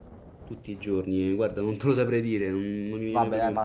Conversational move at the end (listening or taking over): taking over